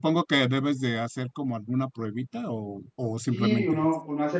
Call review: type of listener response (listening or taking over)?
taking over